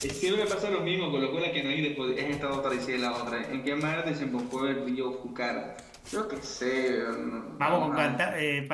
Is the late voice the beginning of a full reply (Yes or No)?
Yes